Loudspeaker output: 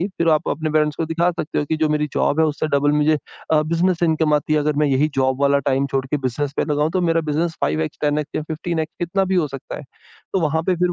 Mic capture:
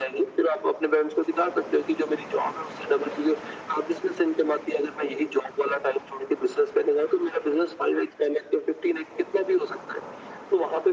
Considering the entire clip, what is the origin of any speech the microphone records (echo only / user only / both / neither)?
echo only